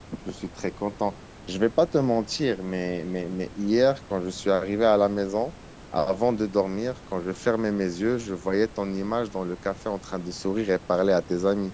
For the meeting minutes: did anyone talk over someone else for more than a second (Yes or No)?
No